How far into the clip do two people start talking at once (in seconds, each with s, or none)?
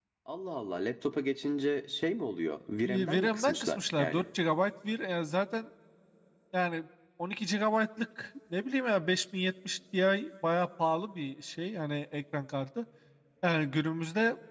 2.8 s